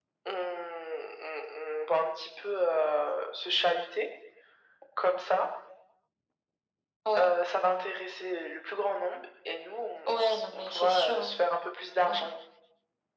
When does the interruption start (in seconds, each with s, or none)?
10.1 s